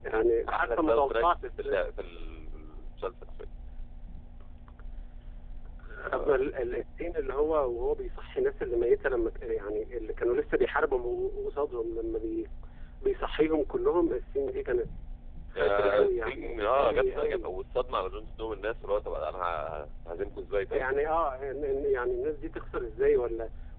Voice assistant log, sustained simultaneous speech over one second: present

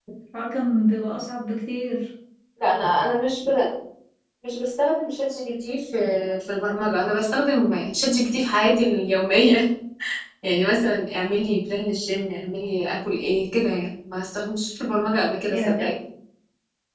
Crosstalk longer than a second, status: none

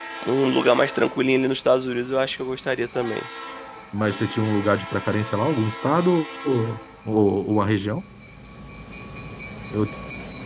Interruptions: none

